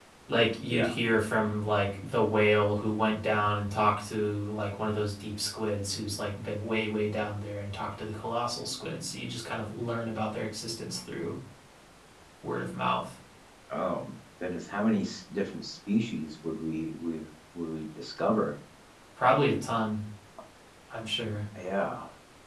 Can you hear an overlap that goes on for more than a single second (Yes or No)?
No